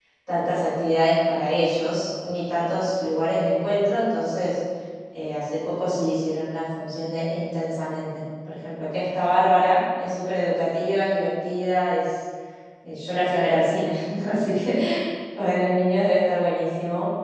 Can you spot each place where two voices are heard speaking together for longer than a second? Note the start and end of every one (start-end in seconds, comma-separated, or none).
none